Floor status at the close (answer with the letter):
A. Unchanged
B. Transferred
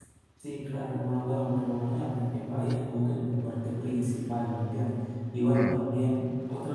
A